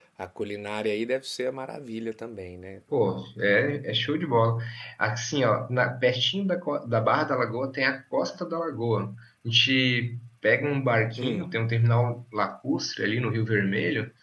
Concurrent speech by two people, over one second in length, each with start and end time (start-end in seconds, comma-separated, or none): none